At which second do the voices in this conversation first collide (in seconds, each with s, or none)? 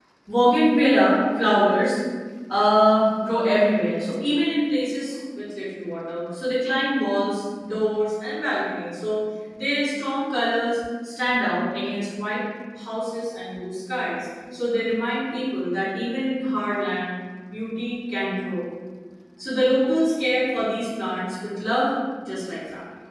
none